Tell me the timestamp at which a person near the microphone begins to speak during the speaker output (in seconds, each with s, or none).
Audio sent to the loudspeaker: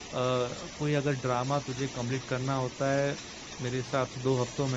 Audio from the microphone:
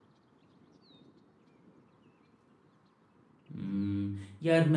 3.6 s